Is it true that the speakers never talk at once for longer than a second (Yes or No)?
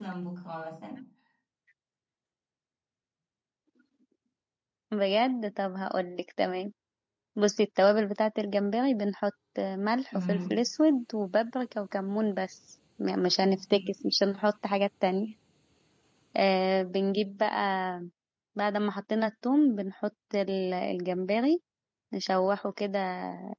Yes